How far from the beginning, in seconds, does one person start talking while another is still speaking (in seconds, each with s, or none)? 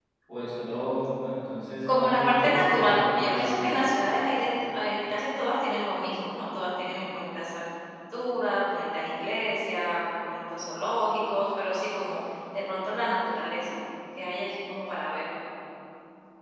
1.9 s